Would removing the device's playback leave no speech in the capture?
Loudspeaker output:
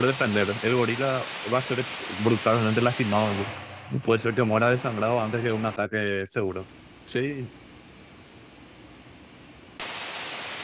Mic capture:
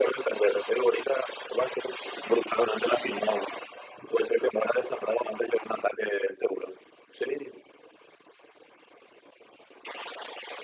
Yes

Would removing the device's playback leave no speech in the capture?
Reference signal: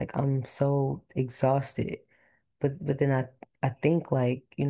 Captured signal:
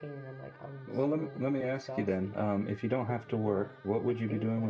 No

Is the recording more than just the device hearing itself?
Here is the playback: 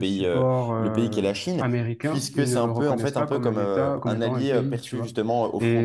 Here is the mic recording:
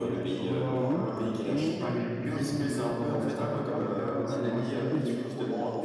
Yes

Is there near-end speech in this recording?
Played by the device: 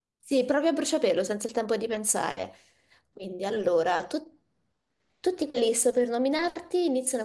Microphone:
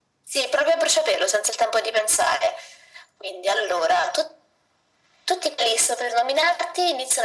No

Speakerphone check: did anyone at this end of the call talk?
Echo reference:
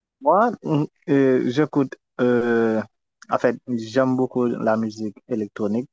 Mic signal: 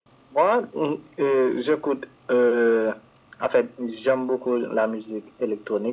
No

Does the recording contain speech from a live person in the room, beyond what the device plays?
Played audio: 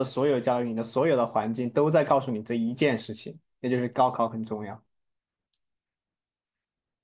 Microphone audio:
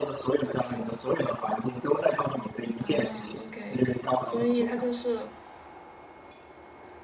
Yes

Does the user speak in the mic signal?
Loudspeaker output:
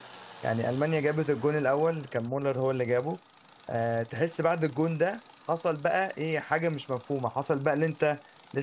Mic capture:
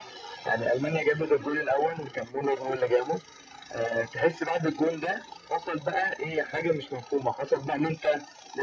No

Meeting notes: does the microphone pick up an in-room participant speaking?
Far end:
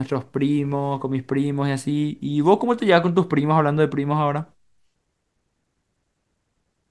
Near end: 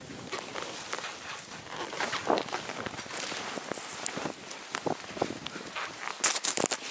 No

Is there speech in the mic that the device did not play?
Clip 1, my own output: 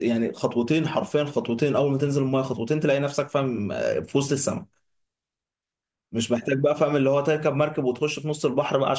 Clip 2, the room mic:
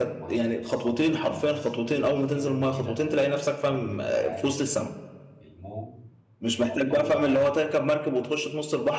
Yes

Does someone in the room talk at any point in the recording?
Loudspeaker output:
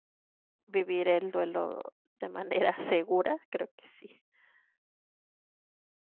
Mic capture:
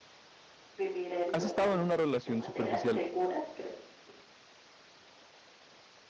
Yes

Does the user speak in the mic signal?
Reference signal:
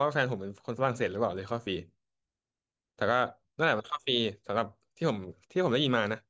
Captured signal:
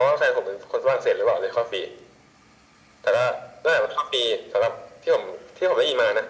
No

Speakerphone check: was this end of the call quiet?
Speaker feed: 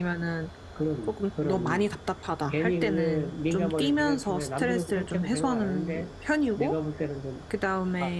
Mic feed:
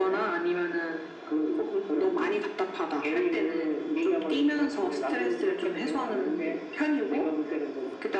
Yes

